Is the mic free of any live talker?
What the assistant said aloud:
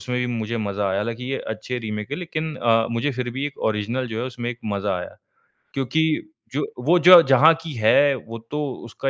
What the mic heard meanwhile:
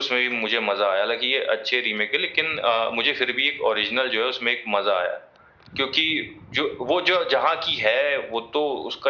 Yes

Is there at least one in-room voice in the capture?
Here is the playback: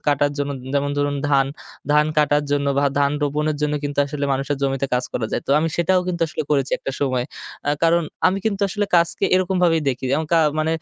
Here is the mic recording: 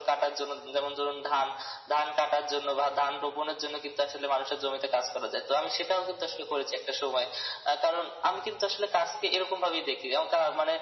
No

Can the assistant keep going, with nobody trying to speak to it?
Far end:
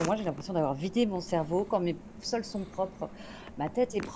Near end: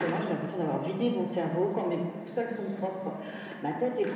Yes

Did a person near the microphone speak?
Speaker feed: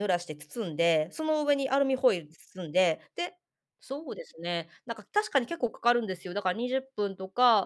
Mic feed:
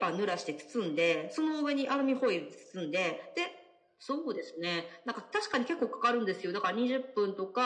No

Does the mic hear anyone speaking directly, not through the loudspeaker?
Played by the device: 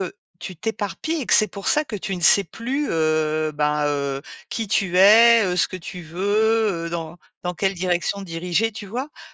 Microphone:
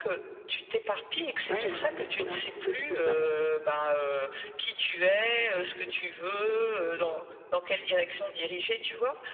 Yes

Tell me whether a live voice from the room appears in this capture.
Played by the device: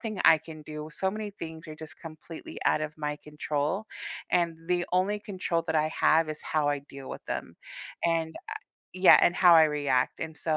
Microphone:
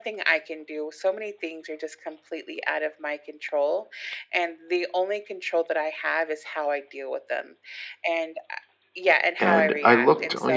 Yes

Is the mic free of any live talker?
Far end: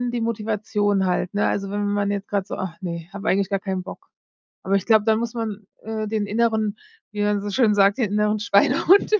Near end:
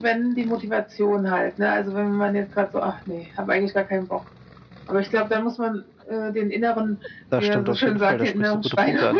No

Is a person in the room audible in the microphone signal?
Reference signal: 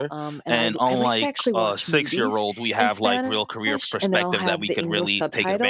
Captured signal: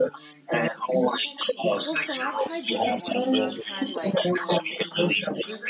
Yes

